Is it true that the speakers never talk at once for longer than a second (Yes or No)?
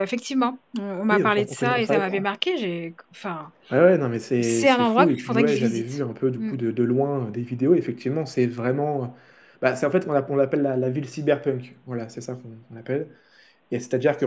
No